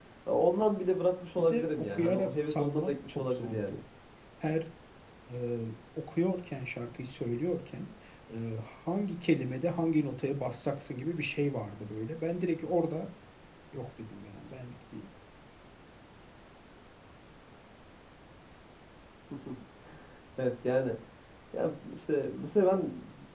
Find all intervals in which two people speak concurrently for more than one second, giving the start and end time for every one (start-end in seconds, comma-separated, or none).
1.4-3.6